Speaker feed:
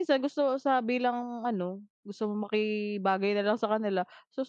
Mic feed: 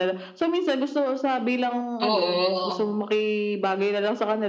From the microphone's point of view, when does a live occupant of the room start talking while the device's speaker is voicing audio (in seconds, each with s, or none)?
2.0 s